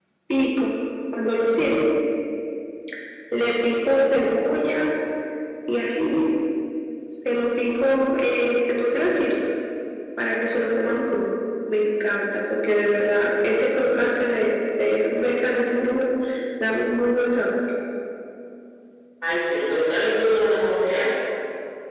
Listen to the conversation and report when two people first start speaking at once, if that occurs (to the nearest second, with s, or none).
none